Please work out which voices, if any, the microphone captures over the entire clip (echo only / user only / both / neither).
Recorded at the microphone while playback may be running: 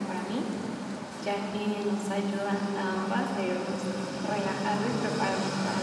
echo only